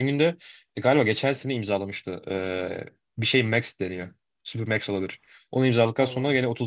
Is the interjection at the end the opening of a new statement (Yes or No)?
No